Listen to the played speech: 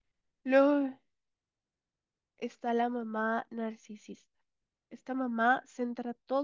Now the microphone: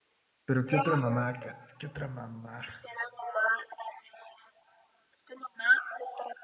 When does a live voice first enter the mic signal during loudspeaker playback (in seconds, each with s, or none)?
0.5 s